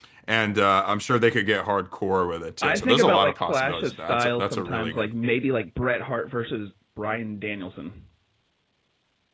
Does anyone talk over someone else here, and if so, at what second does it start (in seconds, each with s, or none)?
2.6 s